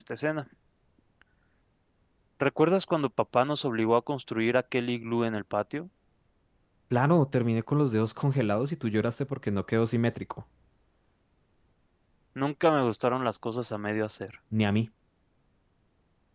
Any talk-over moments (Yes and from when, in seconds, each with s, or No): No